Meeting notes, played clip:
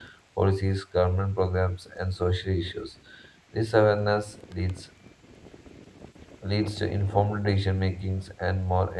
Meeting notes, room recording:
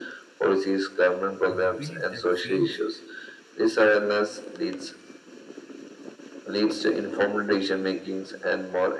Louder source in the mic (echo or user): echo